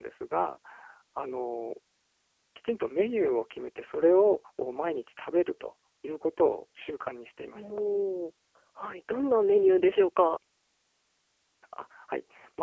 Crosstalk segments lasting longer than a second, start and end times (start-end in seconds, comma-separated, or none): none